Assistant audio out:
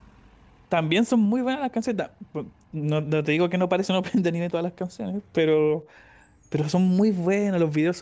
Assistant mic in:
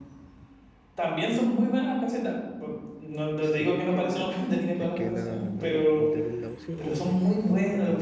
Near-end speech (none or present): present